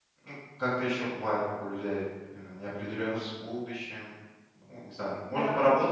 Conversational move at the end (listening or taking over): listening